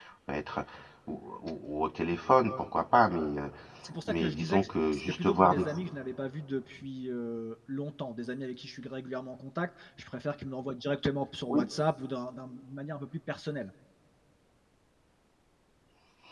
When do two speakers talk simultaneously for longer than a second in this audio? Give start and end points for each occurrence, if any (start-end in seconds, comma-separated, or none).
4.0-5.9